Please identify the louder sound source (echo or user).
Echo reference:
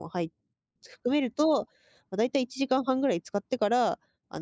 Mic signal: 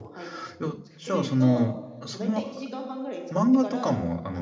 user